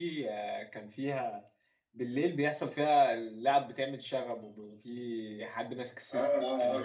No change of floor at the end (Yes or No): No